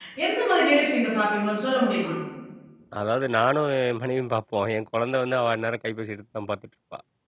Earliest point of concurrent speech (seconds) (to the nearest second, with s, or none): none